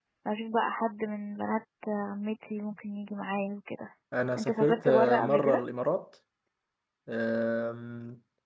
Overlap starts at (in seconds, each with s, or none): 4.4 s